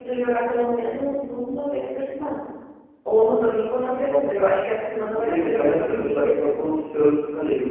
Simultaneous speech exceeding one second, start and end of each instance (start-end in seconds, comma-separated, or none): 5.1-6.7